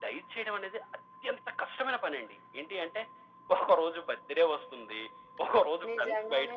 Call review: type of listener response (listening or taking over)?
taking over